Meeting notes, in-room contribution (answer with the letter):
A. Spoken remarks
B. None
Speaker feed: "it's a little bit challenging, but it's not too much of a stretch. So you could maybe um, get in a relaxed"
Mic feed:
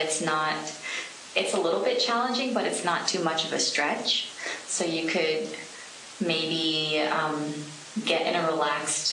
B